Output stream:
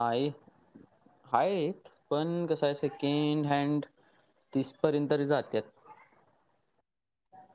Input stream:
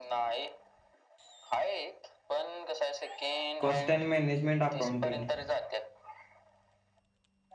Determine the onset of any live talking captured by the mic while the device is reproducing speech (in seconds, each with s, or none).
3.6 s